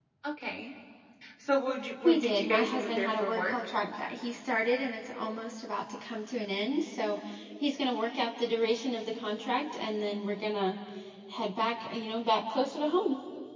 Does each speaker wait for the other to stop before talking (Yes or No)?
No